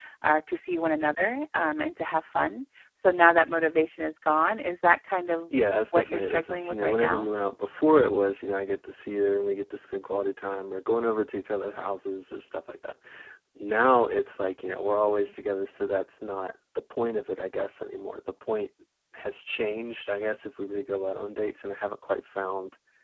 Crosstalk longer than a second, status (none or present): present